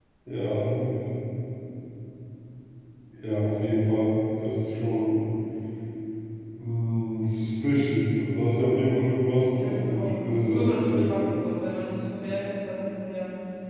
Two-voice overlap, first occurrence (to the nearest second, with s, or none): 10 s